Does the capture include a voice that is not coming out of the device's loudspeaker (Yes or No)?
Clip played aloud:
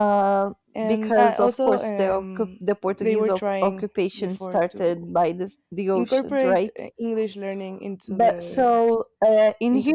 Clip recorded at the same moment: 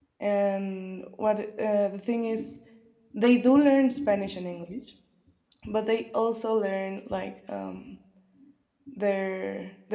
Yes